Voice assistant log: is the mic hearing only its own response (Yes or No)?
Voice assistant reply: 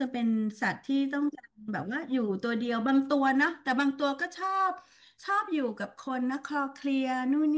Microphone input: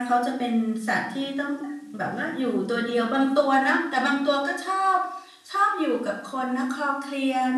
Yes